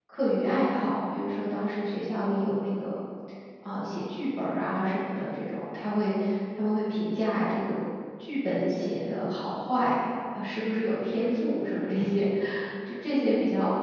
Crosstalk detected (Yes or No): No